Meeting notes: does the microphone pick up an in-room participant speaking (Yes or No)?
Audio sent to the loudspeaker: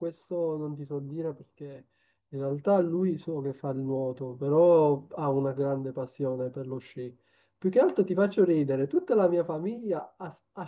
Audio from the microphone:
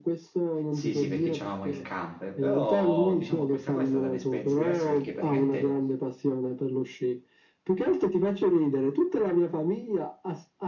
Yes